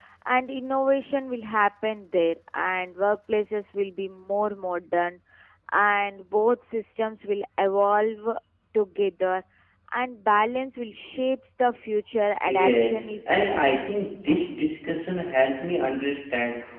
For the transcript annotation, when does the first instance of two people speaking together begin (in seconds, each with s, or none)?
12.4 s